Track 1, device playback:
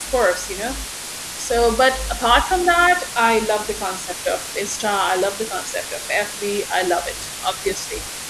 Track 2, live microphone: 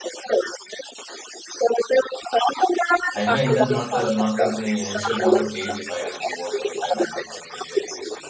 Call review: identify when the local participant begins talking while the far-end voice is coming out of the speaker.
3.1 s

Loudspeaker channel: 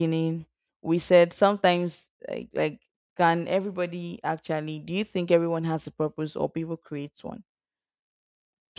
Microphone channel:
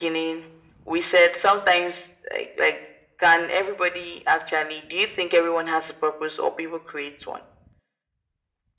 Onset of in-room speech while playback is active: none

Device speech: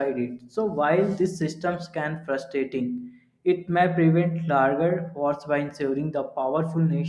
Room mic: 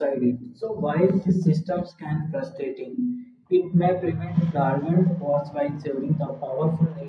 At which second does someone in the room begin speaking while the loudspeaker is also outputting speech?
none

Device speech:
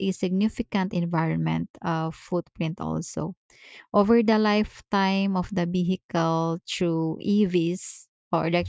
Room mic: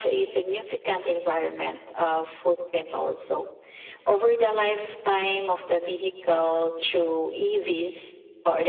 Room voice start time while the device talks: none

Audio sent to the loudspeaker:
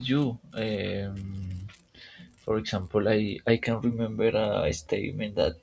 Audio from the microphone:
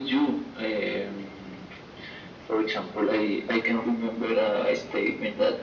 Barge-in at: none

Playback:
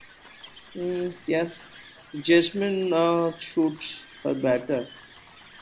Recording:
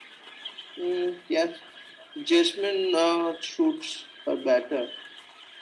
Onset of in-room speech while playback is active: none

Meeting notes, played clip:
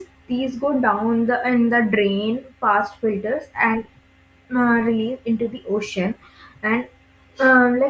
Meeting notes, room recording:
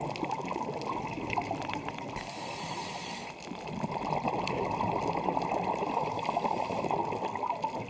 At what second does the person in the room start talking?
none

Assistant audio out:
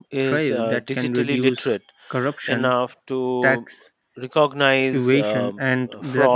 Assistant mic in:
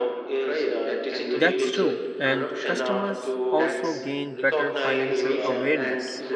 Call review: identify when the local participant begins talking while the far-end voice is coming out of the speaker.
1.3 s

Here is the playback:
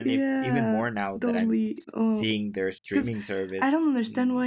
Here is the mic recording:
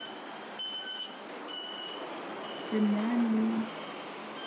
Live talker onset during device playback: 2.7 s

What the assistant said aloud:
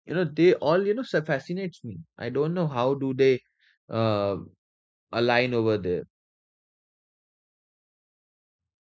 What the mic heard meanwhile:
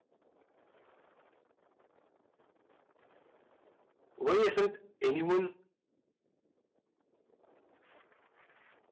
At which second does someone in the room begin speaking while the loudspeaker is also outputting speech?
4.2 s

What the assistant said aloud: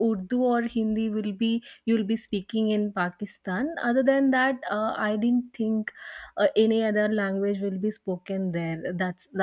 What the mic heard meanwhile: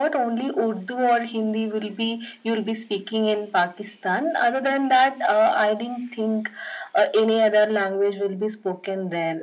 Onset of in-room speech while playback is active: none

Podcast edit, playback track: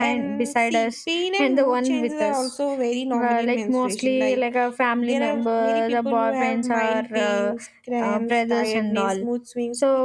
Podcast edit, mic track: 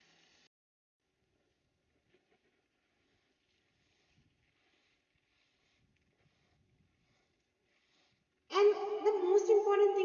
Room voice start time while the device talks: 8.5 s

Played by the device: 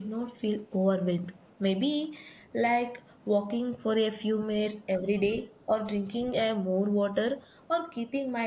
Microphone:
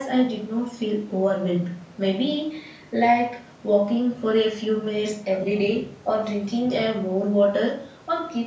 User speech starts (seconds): none

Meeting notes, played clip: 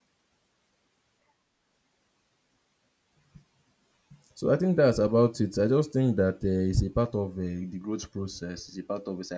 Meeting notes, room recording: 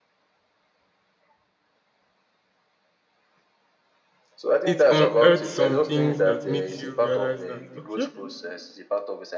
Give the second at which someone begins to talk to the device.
4.6 s

